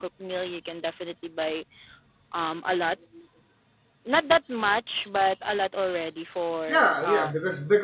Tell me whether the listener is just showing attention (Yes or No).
No